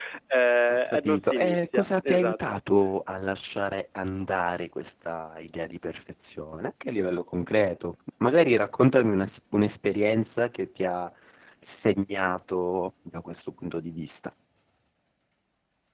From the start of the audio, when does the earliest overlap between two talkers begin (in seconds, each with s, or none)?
0.7 s